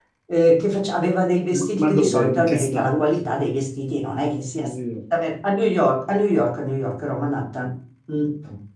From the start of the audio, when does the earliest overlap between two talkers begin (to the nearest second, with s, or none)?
2 s